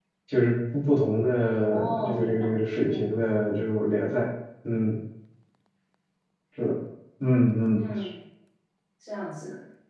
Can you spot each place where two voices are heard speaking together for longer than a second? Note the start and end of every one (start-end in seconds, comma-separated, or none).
1.6-3.2